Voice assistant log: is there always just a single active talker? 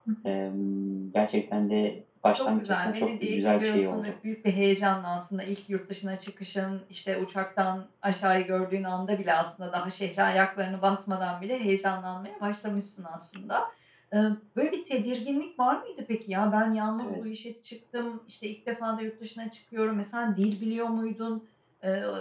No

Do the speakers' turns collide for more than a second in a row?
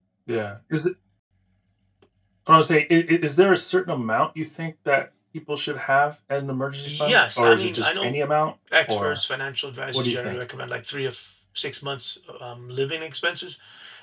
Yes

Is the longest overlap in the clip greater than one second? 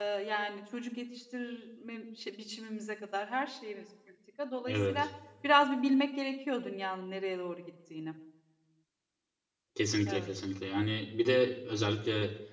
No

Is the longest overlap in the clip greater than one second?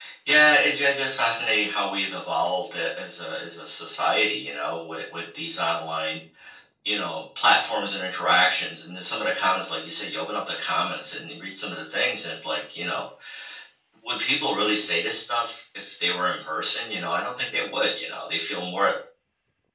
No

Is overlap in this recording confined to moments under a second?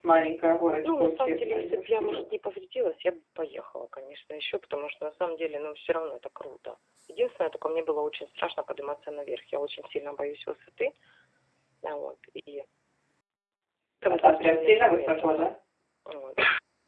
No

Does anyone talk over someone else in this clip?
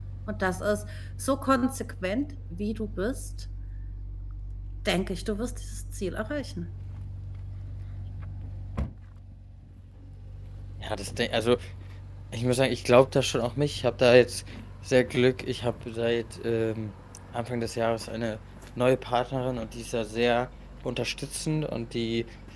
No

